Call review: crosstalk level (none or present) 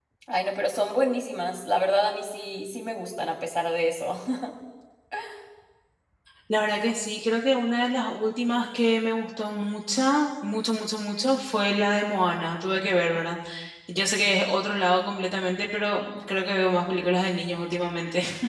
none